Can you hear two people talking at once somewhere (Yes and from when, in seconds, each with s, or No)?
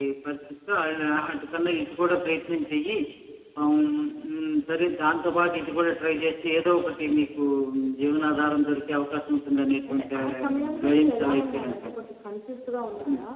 Yes, from 9.9 s